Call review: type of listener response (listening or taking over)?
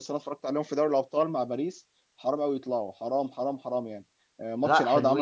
listening